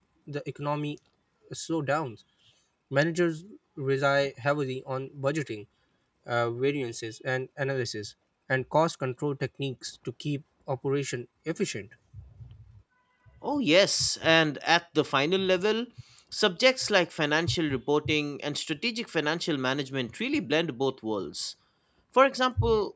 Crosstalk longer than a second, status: none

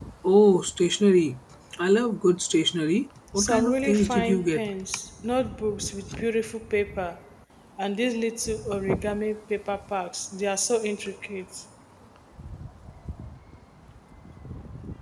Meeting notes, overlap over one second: present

